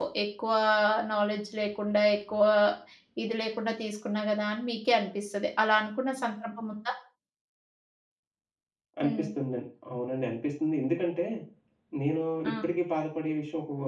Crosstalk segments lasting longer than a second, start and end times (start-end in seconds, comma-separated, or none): none